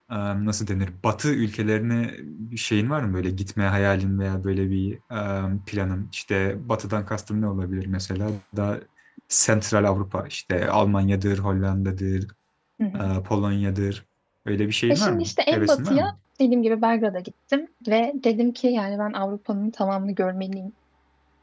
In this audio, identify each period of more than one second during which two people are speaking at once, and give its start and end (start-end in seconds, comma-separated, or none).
14.9-16.1